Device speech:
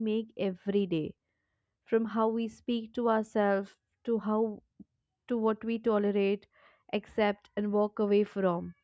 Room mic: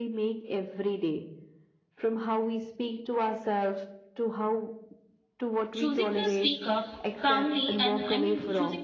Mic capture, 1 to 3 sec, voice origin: echo only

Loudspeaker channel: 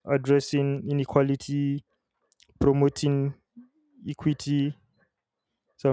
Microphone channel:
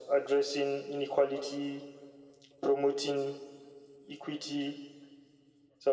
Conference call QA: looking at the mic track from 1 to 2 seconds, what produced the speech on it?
echo only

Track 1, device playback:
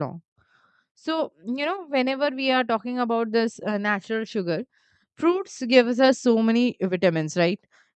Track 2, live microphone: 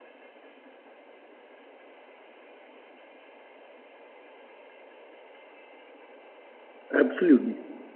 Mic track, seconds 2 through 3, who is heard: neither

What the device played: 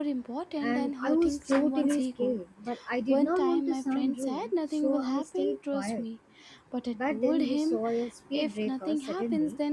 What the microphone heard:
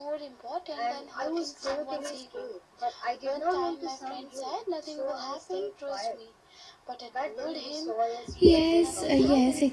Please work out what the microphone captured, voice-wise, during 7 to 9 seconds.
both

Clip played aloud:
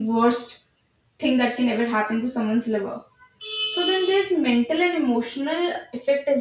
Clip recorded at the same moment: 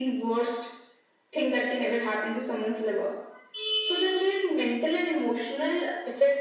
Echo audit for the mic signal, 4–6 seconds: echo only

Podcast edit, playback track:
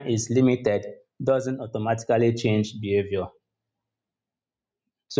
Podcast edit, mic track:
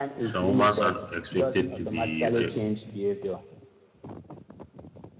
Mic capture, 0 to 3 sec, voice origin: both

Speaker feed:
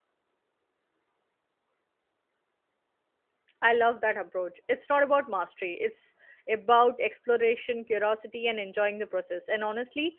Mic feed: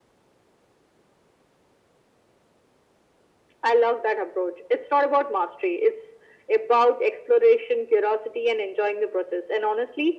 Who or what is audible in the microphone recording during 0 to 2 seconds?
neither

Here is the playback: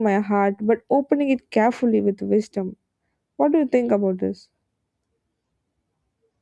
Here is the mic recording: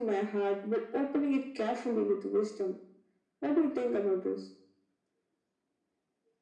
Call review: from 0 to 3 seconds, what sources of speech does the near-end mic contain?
echo only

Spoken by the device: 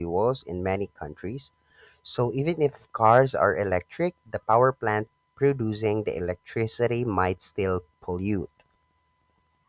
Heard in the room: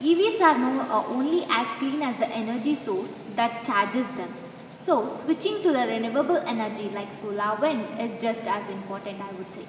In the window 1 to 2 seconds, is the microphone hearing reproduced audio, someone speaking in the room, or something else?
user only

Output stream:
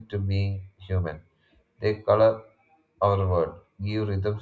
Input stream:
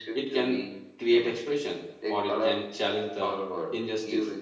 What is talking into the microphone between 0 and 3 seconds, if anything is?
both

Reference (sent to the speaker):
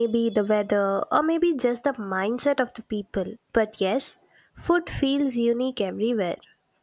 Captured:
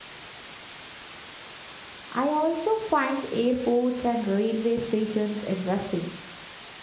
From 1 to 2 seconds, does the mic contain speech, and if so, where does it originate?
neither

